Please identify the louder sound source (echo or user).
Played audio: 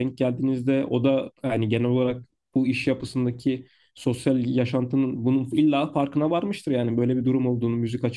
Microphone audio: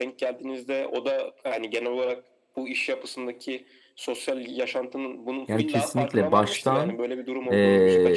user